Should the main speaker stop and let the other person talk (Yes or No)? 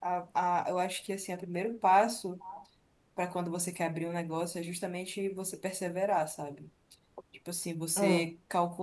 No